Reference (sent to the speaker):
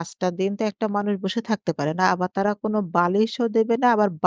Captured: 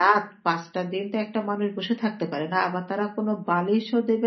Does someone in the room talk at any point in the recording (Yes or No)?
No